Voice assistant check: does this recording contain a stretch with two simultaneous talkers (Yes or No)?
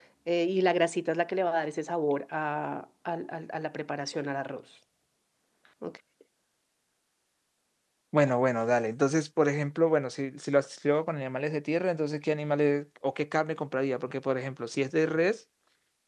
No